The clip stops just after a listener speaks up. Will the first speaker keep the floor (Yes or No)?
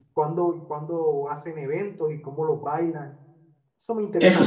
No